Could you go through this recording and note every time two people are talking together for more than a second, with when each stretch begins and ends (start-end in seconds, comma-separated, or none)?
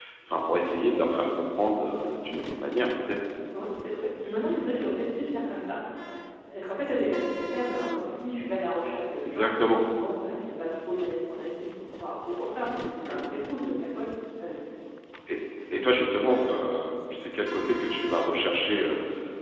none